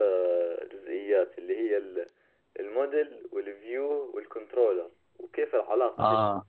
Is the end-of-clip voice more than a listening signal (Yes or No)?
No